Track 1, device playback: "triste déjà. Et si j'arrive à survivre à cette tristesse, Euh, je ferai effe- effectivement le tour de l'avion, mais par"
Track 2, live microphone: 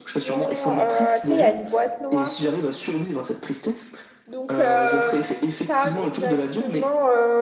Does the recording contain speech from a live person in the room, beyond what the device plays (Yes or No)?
Yes